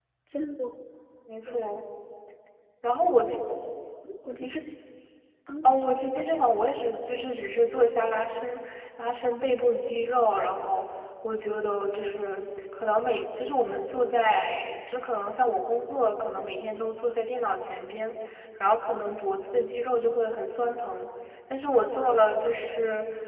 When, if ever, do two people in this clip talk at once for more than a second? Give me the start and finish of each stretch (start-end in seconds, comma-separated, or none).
none